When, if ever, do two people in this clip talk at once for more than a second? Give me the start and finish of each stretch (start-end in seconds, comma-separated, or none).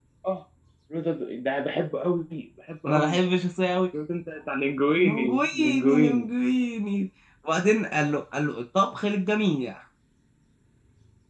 5.0-6.3